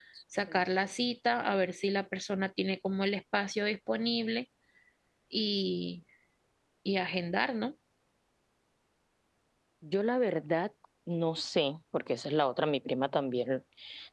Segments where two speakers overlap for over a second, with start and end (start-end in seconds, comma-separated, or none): none